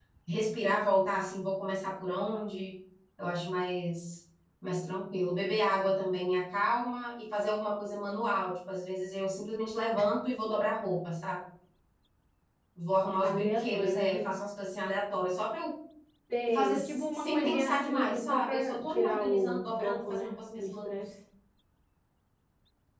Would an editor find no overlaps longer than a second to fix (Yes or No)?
No